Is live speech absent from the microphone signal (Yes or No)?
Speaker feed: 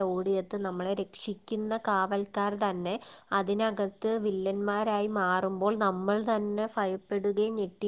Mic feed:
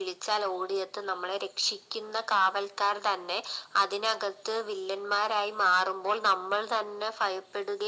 Yes